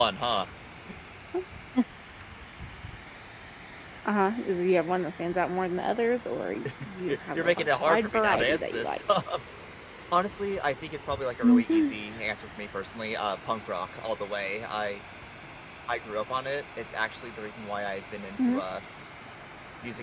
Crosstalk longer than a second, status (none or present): present